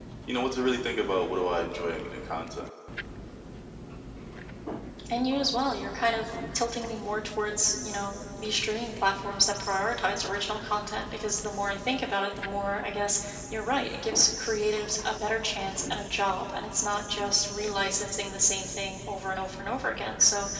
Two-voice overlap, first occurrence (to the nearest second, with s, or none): none